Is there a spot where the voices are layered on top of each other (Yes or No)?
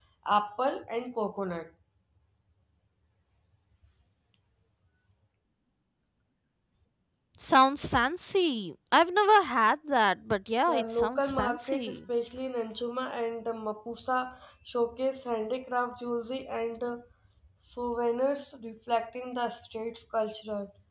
Yes